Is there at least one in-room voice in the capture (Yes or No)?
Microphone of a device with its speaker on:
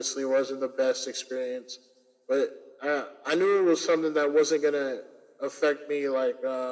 No